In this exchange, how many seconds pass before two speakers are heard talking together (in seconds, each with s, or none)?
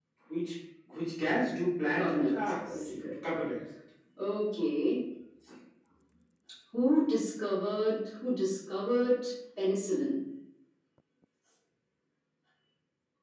1.9 s